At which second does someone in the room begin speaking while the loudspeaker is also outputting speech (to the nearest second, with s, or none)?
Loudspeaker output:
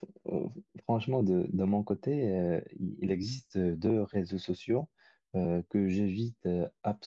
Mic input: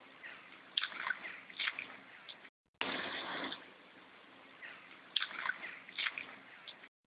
none